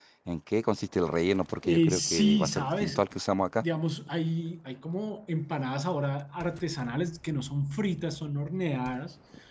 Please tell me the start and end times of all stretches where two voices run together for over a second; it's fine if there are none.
1.6-3.0

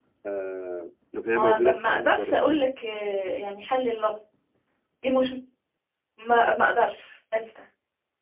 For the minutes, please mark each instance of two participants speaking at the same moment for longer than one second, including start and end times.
1.2-2.6

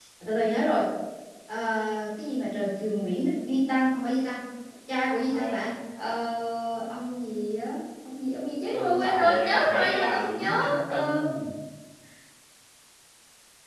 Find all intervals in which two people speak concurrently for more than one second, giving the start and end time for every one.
8.7-11.2

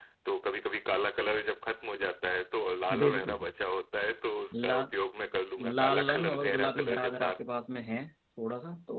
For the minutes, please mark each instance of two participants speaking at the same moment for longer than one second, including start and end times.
5.8-7.4

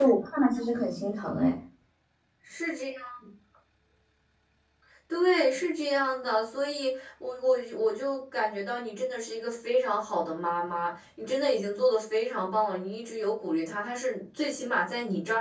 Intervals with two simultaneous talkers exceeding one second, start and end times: none

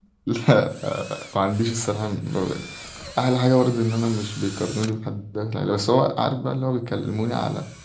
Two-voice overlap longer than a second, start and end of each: none

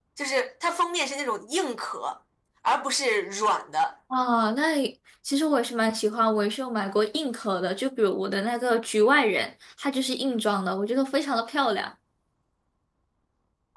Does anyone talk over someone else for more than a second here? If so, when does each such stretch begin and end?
none

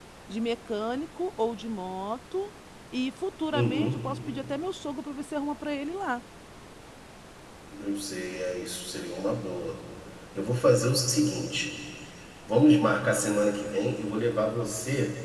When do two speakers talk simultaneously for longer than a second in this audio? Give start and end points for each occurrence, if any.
none

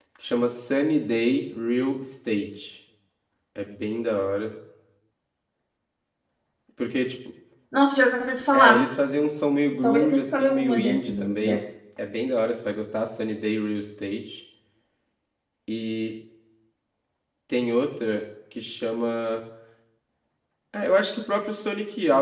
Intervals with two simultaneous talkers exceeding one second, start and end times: 9.8-11.6

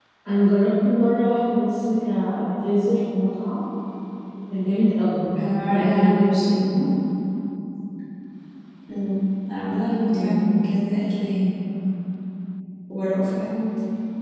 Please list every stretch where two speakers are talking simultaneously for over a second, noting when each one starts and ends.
5.5-6.8

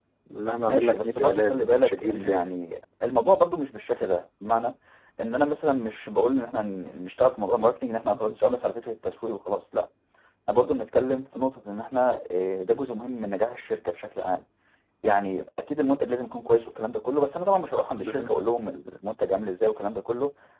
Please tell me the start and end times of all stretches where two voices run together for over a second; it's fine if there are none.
0.5-2.5

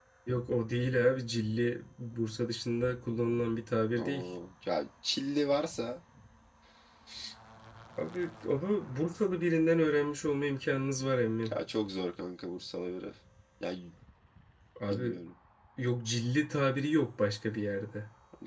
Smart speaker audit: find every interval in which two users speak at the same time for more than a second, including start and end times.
none

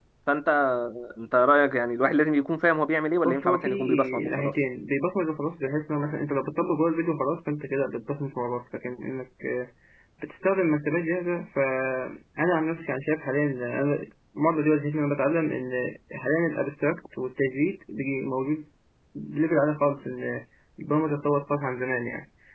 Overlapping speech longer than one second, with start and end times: 3.2-4.5

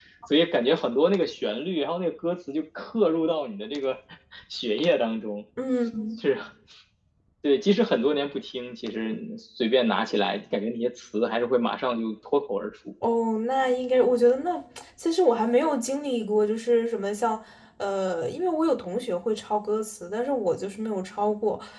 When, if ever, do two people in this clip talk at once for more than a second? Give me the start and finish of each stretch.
none

